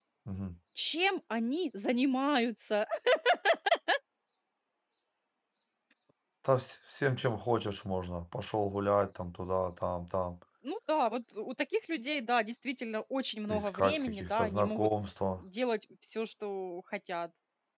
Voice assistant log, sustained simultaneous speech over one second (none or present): present